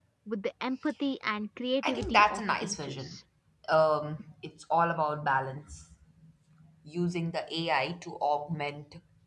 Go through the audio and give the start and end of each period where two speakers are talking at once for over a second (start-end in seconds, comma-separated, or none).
1.8-3.2